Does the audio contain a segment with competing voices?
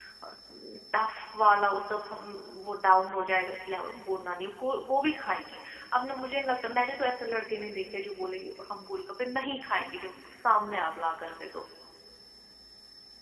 No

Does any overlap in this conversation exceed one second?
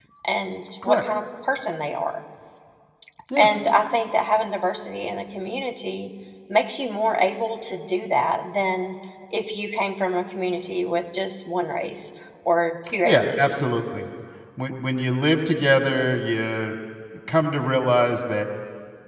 No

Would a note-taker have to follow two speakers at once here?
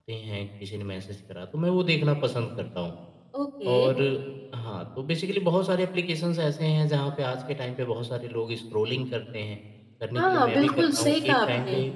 Yes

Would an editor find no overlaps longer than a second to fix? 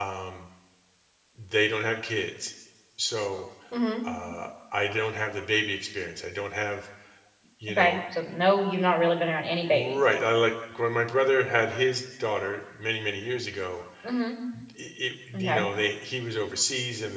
Yes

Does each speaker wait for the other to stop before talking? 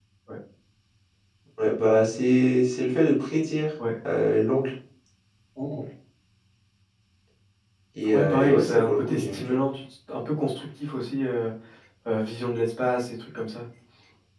No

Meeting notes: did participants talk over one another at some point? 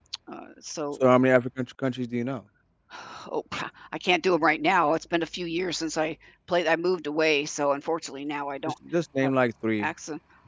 No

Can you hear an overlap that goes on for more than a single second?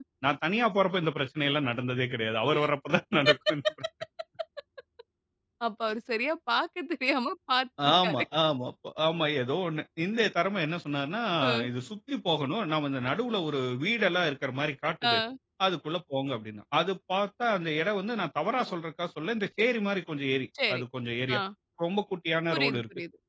No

